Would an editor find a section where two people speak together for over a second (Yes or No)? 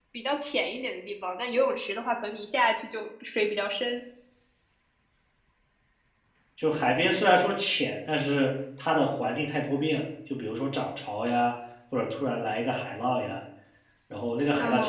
No